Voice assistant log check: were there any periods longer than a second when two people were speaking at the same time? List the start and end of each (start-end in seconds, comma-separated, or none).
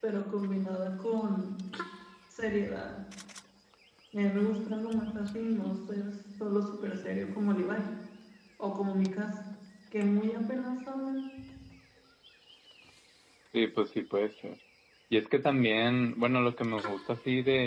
none